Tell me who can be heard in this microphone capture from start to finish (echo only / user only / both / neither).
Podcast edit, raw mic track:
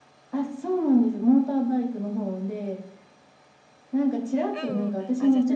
both